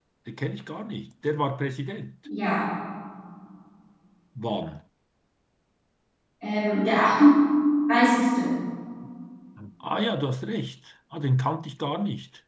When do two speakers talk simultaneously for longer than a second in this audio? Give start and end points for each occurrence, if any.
none

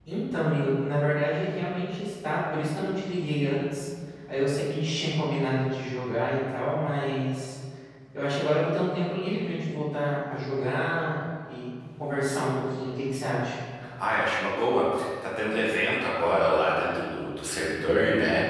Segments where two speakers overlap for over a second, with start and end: none

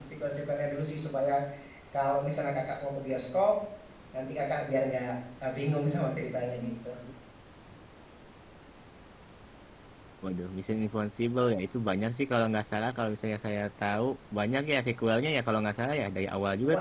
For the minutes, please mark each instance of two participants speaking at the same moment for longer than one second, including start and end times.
none

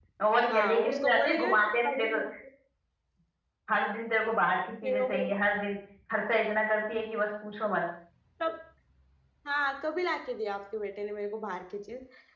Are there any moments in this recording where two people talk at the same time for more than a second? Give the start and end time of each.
0.5-2.1

